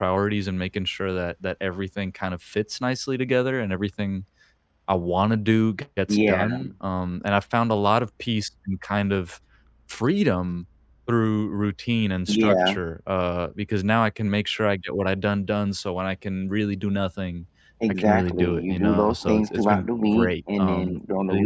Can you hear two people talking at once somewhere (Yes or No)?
Yes